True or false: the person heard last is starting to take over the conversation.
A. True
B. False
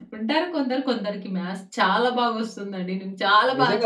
A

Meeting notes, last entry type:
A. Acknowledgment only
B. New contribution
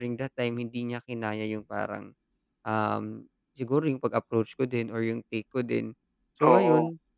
A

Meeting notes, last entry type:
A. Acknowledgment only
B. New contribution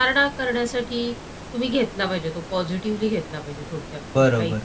B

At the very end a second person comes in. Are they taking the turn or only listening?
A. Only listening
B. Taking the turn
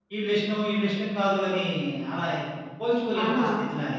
B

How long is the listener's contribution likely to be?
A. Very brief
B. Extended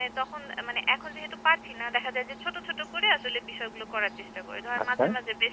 A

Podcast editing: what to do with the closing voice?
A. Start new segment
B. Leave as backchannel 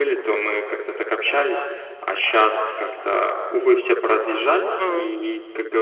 B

